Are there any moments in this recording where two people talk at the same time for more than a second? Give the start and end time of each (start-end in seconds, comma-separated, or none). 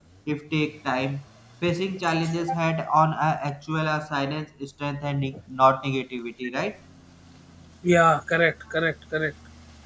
none